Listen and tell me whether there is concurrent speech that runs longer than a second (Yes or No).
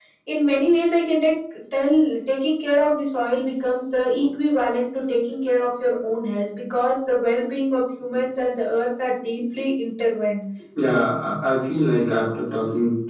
No